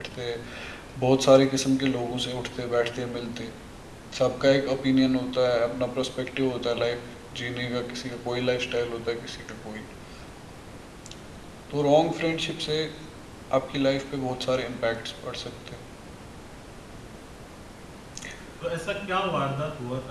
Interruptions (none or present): none